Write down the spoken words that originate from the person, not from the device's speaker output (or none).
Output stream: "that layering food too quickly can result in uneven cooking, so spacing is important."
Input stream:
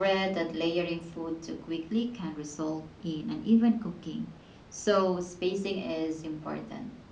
none